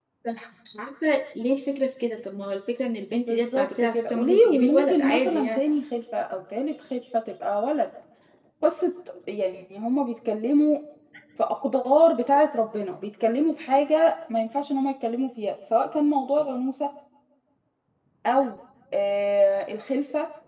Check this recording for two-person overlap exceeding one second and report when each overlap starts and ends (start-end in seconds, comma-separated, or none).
3.3-5.6